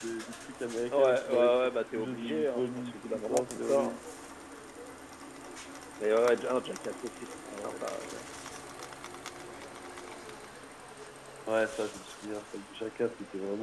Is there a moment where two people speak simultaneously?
Yes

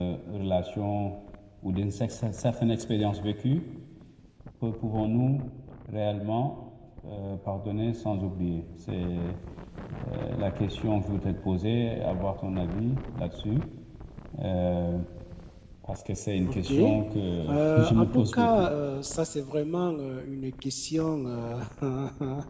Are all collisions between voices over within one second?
No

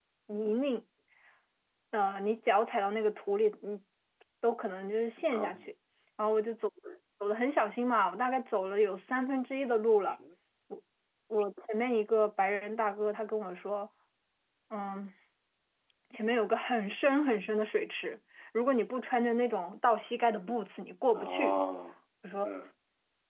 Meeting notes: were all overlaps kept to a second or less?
Yes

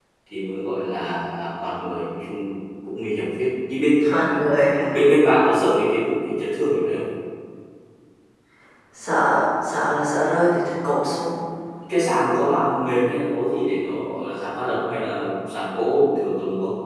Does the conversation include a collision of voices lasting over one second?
No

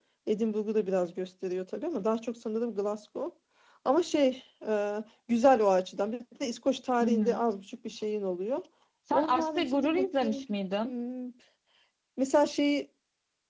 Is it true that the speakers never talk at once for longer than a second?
No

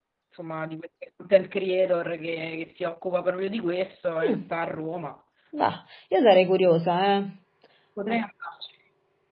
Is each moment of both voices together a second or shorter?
Yes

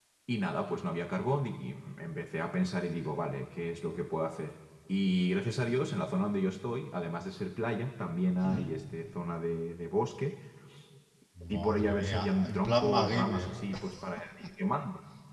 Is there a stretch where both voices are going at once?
Yes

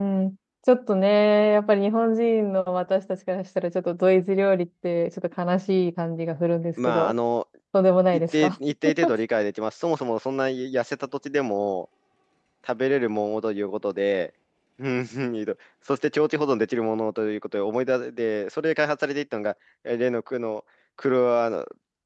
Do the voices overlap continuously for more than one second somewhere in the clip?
No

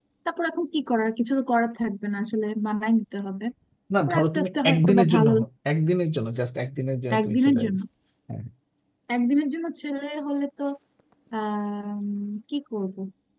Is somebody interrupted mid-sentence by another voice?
Yes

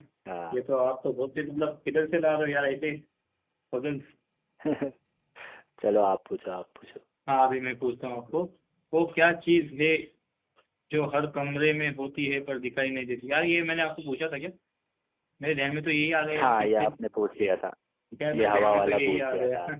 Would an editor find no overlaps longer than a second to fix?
No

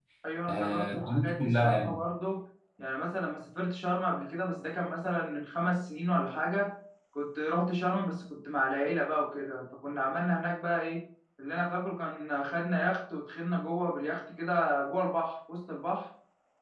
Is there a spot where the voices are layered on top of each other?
Yes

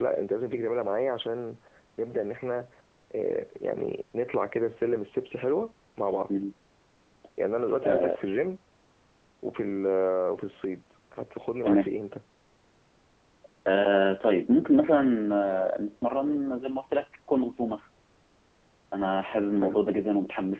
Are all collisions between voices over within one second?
Yes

